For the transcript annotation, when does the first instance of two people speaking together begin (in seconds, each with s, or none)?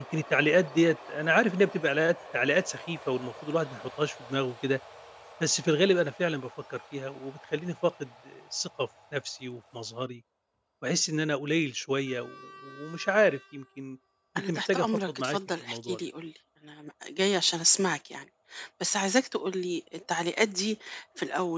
14.4 s